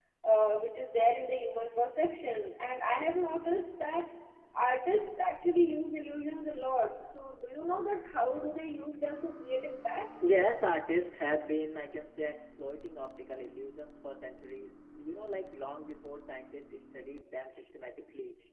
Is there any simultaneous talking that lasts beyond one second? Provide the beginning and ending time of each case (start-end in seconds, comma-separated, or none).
none